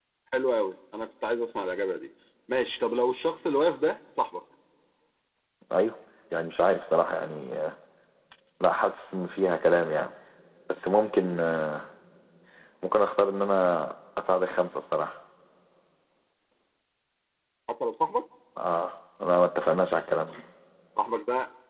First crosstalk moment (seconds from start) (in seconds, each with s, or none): none